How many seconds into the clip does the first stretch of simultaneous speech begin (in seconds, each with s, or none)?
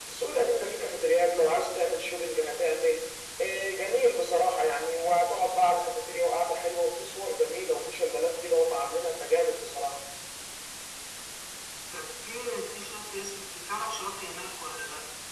none